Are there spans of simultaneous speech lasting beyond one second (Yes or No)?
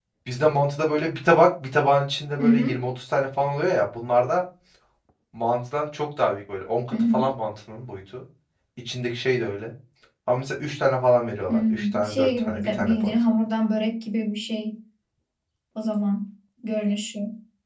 Yes